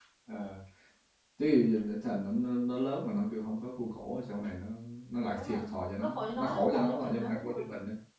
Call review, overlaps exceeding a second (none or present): present